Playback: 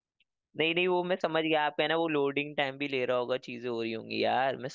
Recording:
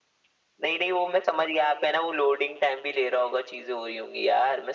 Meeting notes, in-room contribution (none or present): none